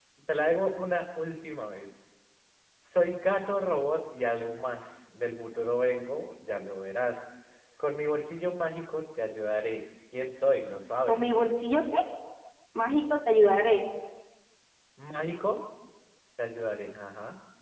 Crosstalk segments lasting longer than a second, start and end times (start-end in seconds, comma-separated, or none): none